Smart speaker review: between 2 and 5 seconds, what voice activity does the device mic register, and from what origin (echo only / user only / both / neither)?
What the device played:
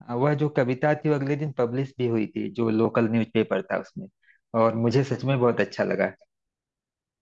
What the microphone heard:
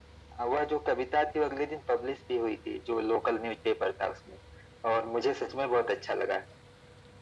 echo only